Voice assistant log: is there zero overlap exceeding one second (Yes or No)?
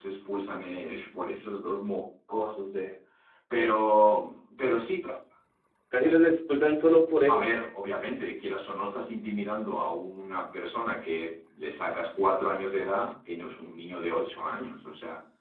Yes